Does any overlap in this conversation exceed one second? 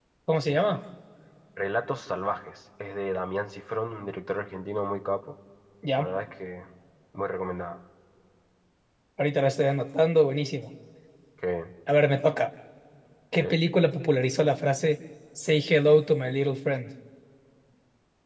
No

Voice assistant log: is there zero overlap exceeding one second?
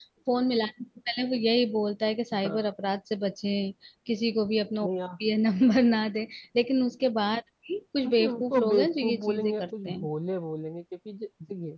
No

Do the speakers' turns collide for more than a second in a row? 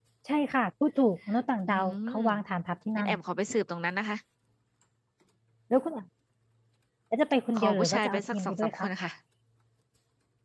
Yes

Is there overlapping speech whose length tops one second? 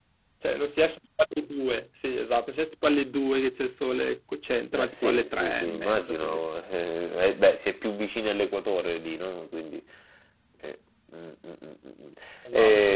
Yes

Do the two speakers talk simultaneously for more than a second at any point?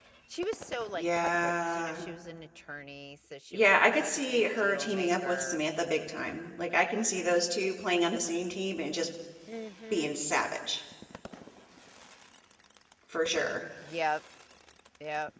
Yes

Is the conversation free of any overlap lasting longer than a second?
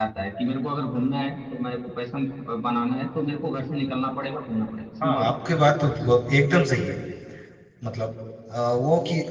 Yes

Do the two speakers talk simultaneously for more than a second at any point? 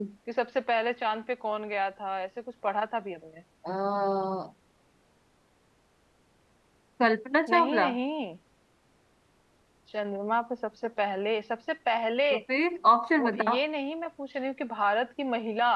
No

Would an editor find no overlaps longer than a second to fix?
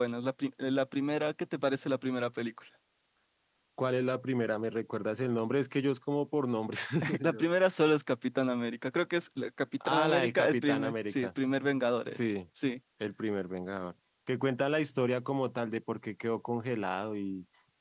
No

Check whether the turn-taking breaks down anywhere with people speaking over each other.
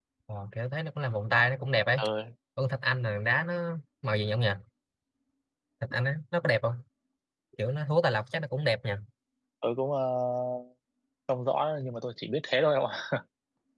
No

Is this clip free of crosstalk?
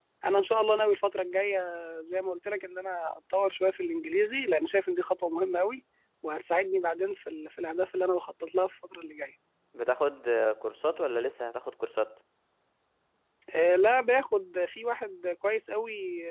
Yes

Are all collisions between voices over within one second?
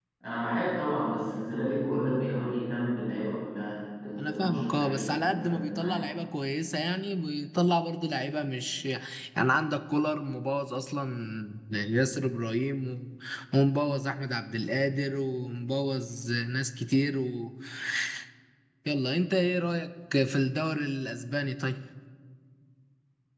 No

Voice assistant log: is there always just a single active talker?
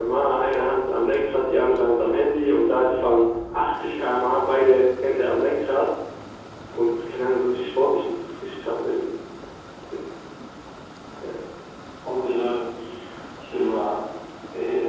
Yes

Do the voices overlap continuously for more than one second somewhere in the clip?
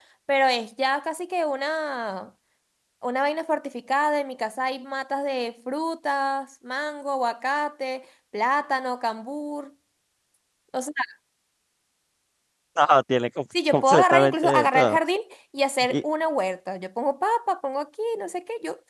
Yes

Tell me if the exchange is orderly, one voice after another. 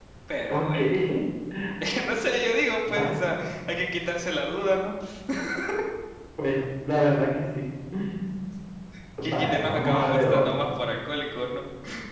No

